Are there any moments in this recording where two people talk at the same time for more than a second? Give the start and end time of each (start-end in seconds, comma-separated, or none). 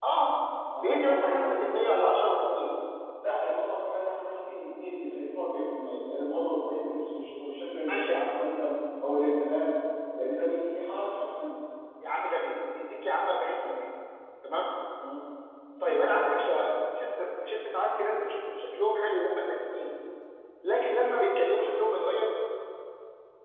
0.8-2.1